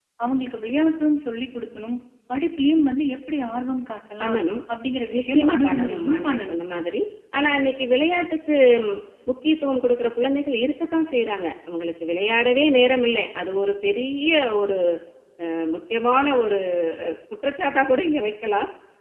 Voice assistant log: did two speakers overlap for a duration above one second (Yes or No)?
Yes